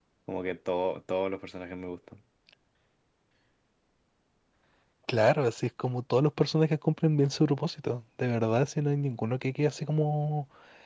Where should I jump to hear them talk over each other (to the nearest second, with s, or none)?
none